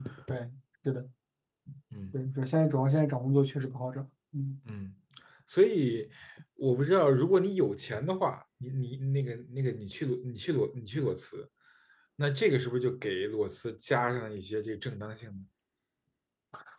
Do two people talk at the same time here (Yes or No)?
No